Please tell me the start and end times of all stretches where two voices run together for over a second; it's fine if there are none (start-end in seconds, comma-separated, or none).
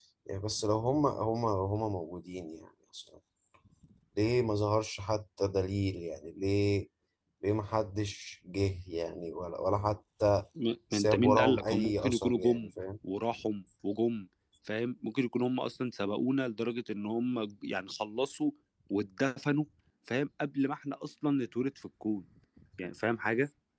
10.9-12.7